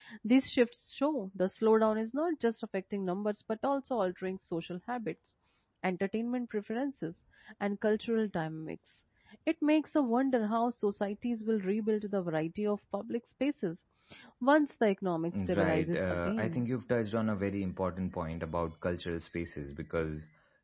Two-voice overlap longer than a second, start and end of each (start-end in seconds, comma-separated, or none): 15.3-16.6